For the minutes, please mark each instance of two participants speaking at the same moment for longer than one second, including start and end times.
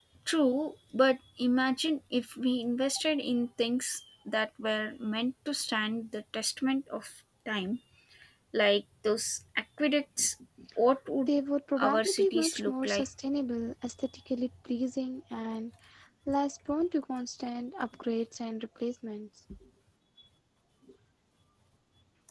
11.8-13.1

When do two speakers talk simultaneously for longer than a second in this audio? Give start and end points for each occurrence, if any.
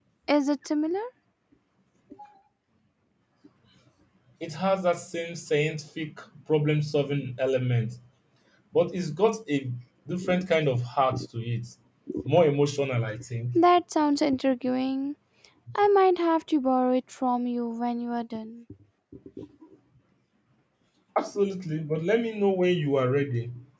none

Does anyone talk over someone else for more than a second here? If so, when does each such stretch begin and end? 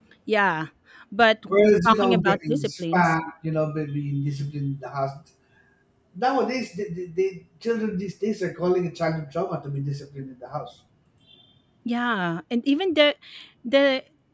1.9-3.1

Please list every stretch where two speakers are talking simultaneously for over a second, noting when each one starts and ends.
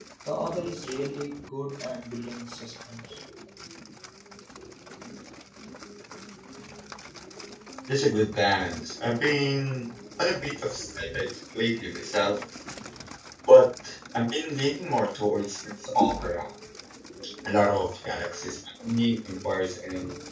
none

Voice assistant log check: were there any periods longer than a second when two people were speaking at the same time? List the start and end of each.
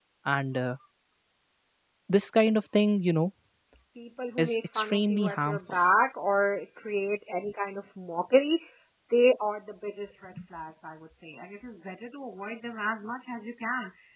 4.4-5.8

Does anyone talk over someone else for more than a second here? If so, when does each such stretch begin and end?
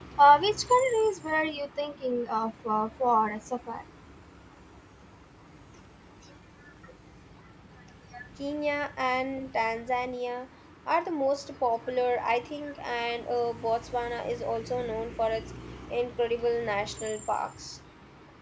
none

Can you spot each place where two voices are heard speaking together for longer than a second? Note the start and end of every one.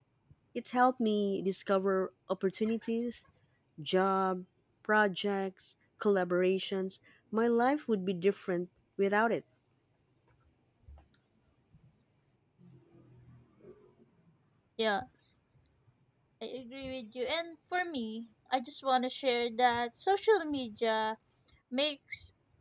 none

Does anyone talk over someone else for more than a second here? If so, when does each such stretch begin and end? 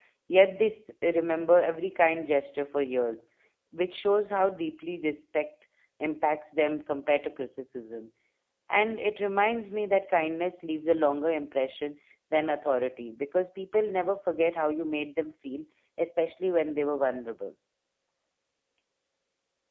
none

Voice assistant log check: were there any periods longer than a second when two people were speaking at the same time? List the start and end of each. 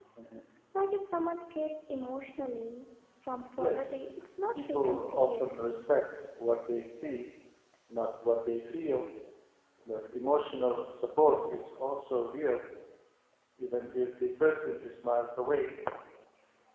4.5-5.9

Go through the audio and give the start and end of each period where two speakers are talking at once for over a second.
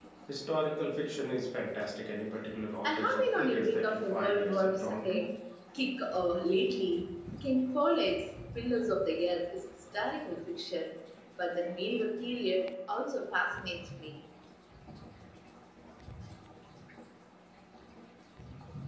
2.8-5.2

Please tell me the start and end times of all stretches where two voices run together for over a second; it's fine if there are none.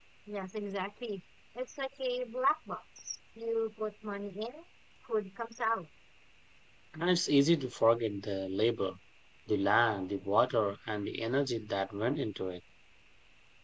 none

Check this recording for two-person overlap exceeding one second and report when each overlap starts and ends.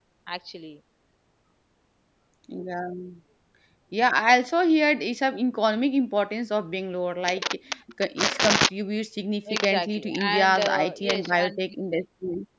9.5-11.6

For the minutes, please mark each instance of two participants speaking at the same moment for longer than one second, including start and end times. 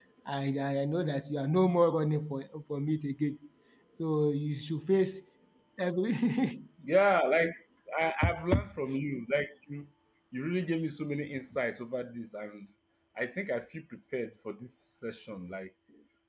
none

